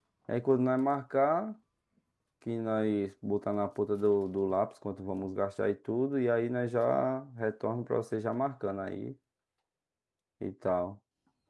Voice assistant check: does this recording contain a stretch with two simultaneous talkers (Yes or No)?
No